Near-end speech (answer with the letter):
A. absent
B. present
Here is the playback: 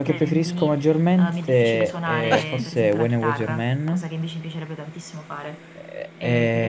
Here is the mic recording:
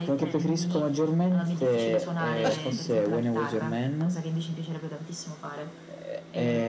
A